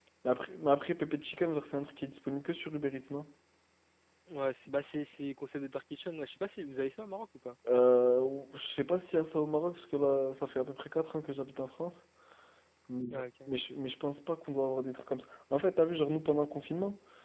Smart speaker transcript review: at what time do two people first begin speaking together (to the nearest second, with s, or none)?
none